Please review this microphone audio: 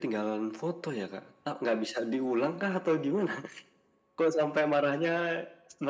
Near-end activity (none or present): none